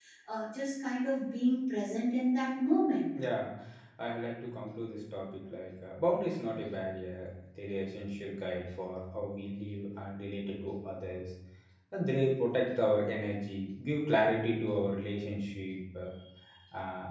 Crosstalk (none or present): none